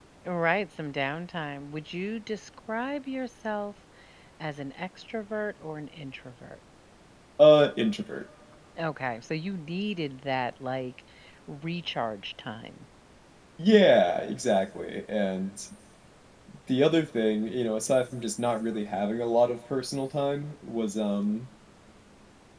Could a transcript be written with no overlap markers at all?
Yes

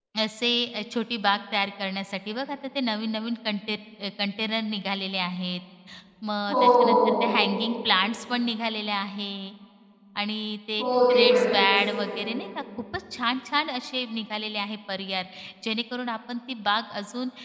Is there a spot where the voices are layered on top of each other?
Yes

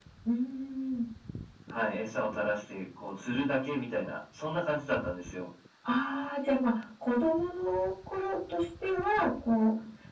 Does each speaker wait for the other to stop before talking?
Yes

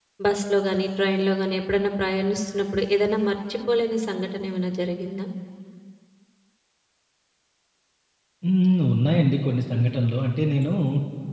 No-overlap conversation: Yes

